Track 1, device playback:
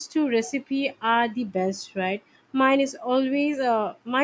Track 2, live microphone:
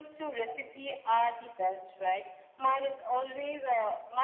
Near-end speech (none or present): none